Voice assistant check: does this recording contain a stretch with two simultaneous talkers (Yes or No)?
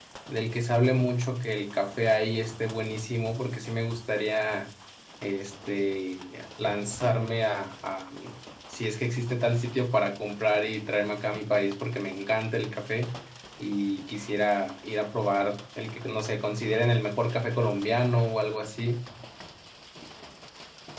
No